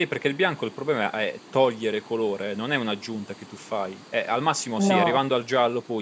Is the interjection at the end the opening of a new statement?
No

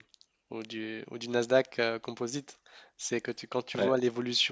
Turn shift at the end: No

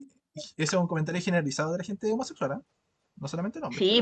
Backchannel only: No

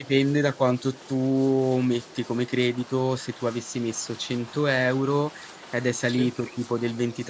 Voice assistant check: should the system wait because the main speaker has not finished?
Yes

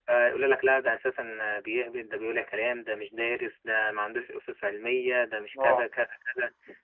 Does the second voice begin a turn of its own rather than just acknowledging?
No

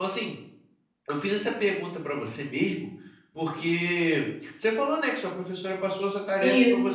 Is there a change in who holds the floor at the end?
No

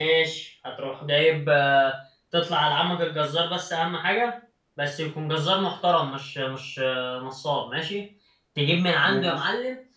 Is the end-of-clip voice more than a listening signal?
No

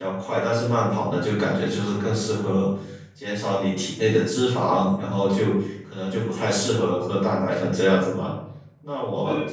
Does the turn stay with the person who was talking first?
Yes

